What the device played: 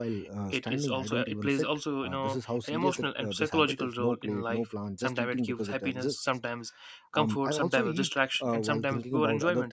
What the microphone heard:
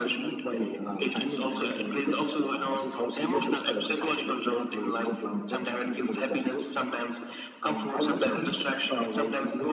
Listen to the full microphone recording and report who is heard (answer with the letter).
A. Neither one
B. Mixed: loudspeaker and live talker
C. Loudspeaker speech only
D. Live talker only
C